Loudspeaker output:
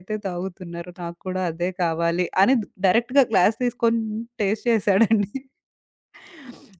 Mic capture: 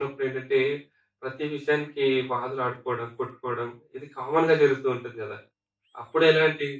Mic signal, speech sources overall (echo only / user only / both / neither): user only